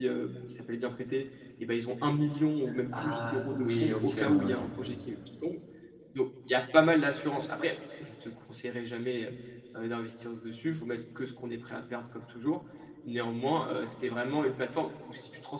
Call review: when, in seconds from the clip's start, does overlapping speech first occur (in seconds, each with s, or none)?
2.9 s